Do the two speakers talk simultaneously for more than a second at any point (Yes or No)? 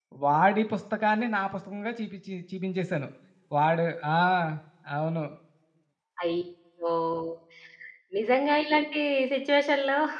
No